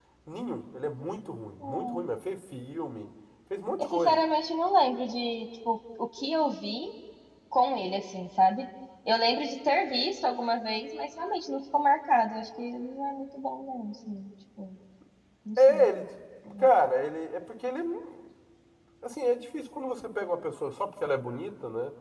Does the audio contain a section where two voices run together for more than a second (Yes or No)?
No